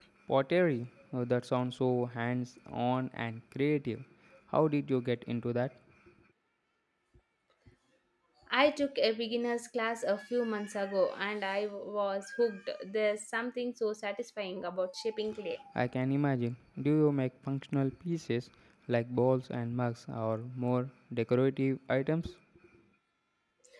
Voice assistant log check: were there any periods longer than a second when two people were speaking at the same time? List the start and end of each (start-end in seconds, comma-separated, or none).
none